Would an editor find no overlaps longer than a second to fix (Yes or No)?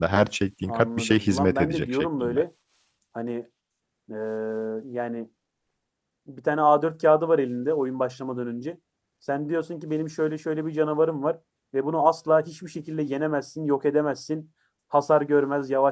No